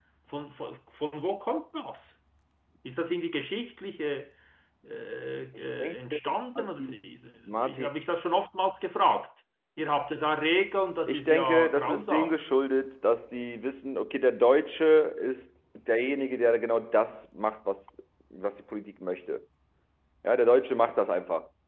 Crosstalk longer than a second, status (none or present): present